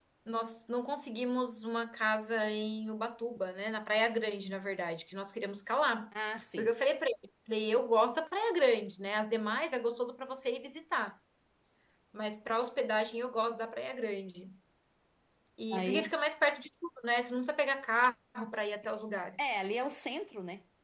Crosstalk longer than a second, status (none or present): none